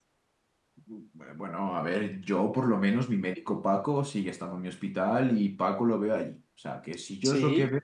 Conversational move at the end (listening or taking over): taking over